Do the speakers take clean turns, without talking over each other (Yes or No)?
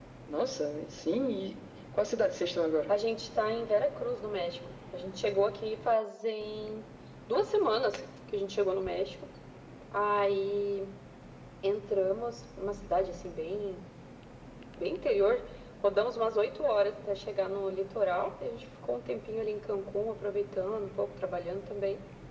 Yes